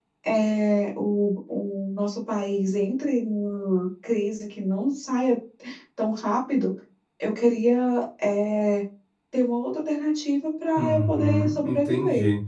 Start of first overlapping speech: 10.8 s

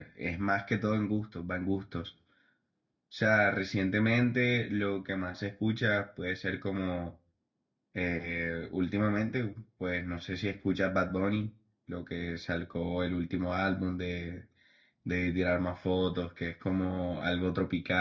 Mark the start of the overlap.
none

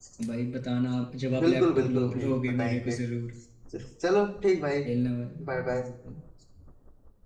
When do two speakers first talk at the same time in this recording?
1.4 s

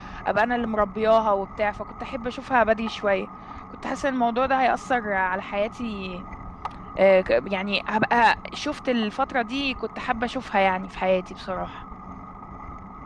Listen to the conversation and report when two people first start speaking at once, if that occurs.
none

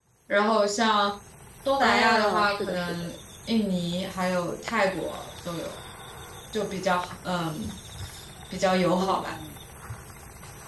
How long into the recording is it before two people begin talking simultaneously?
1.8 s

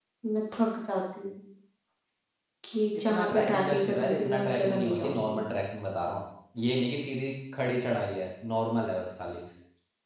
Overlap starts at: 3.0 s

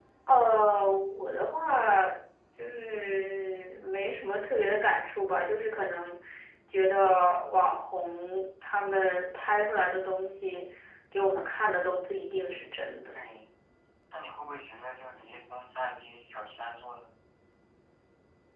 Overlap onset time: none

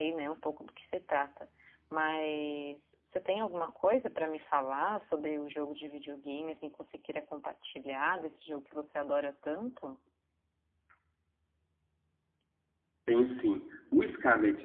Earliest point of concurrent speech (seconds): none

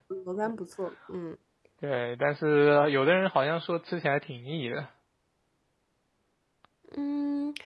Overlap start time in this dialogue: none

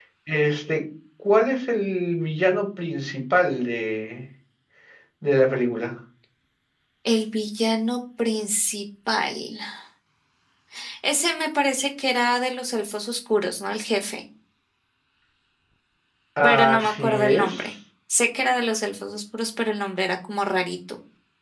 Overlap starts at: 16.4 s

